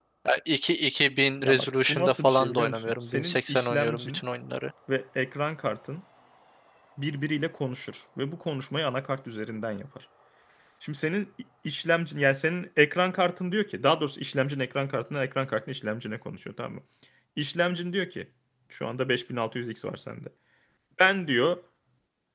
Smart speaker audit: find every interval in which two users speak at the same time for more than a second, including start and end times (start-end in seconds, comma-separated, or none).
1.4-4.2